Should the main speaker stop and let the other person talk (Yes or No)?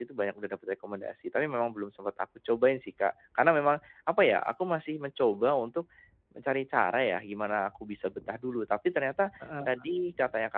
No